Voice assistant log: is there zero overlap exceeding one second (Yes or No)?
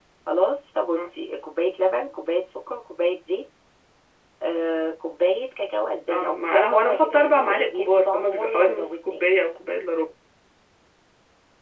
No